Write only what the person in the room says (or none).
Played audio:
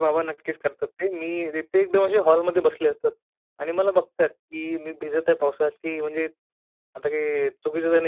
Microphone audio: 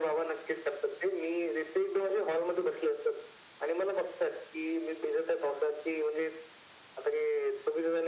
none